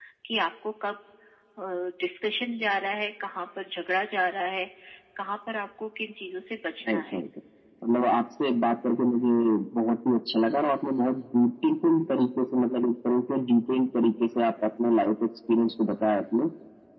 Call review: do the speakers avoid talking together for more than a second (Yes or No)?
Yes